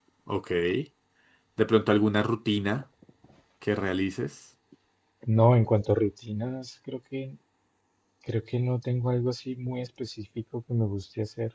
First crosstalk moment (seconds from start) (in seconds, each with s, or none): none